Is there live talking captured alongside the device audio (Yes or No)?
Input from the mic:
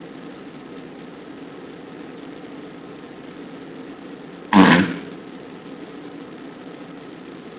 Yes